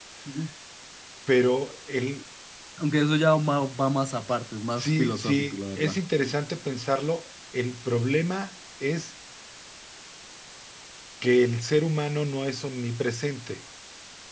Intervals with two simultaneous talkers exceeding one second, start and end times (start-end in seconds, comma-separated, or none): 4.8-6.0